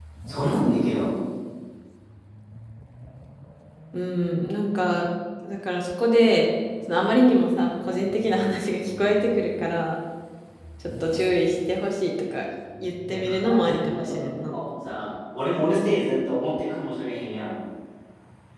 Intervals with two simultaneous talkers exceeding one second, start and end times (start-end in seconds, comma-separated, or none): 13.1-14.6